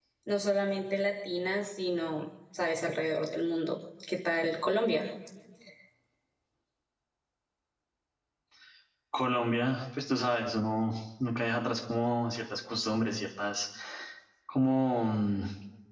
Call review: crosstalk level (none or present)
none